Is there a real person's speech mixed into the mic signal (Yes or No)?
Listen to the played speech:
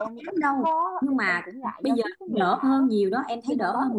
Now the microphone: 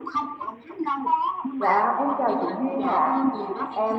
Yes